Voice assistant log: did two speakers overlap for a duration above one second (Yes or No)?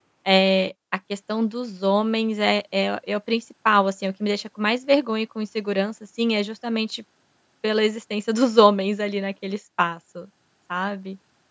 No